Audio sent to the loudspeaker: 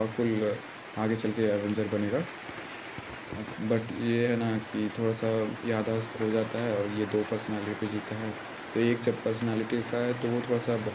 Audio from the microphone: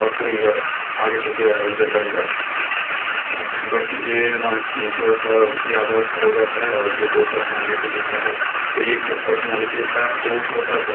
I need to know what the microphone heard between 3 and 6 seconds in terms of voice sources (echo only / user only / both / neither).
echo only